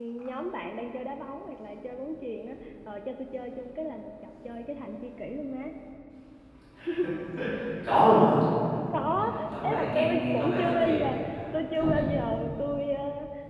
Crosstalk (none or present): present